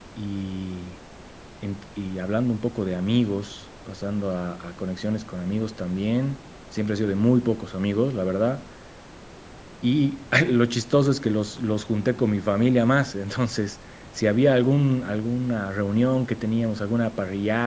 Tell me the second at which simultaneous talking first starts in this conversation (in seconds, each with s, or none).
none